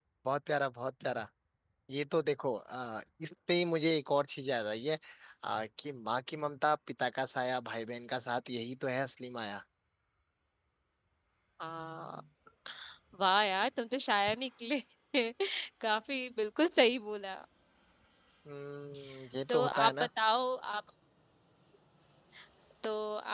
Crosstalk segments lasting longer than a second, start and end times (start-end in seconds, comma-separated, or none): none